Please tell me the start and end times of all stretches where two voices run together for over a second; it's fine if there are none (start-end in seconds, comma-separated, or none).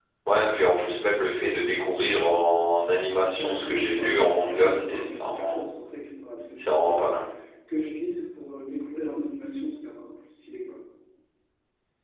3.1-5.6